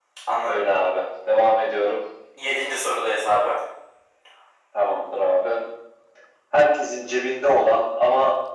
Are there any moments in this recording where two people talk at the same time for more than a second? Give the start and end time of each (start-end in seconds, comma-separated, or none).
none